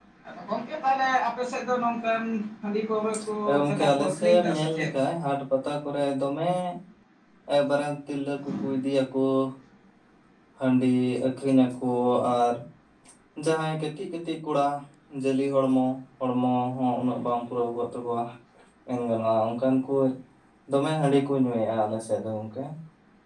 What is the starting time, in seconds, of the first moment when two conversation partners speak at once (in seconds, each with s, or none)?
3.5 s